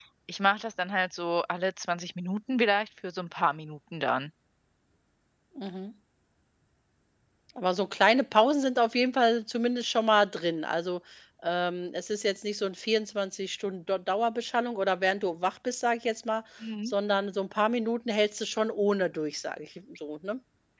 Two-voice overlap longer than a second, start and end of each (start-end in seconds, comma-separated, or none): none